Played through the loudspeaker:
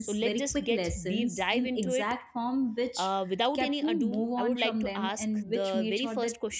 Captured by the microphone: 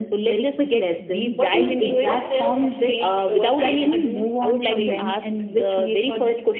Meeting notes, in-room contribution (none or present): present